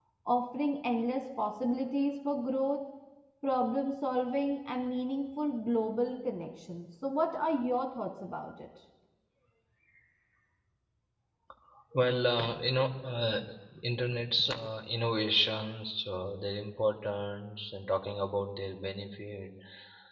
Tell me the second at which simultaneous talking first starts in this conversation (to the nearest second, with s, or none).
none